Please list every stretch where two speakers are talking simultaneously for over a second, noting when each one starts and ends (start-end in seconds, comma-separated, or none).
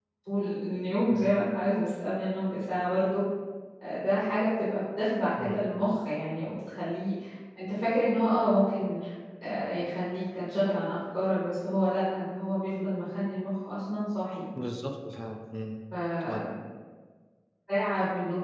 none